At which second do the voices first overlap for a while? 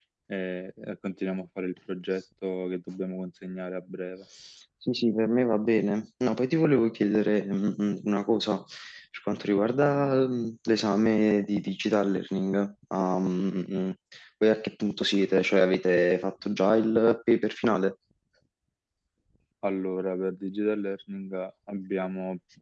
none

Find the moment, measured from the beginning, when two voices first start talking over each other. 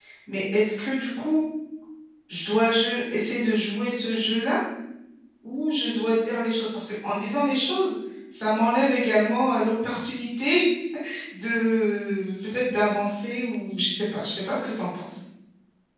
none

